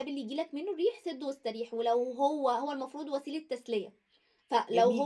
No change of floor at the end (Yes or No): No